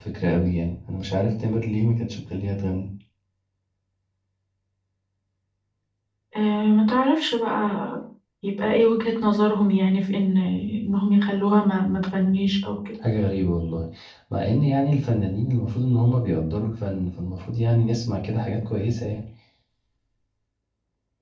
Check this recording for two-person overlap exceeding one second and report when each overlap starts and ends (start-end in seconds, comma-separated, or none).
none